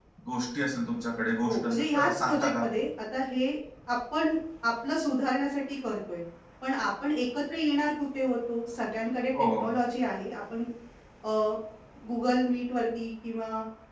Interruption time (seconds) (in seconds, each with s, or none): 1.4 s